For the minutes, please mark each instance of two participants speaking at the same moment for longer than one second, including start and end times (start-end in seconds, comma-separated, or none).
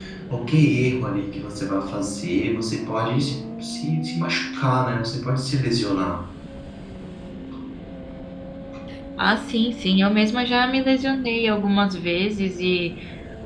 none